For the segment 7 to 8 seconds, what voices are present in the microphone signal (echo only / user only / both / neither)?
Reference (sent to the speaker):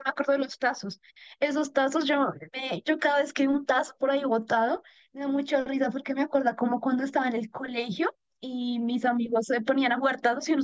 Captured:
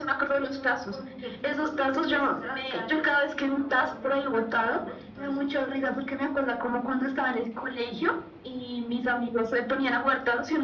echo only